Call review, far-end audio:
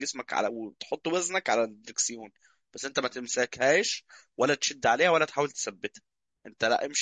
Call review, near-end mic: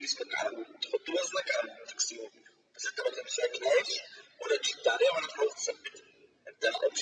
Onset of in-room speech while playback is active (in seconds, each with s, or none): none